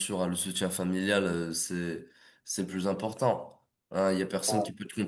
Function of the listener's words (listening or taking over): listening